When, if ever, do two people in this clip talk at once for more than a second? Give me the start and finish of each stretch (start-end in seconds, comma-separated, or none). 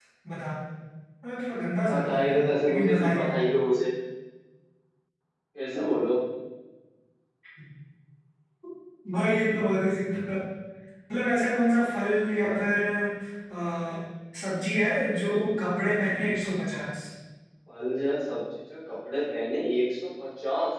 1.9-3.3